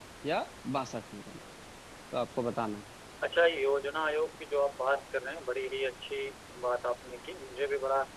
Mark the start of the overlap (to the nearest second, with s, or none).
none